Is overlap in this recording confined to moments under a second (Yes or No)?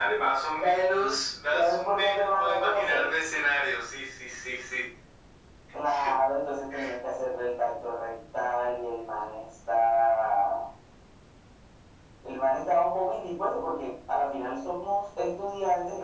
No